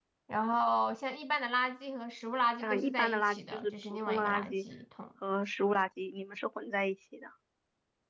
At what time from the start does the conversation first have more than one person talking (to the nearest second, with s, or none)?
3 s